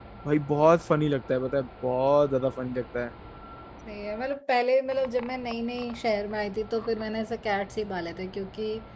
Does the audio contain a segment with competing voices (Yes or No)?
No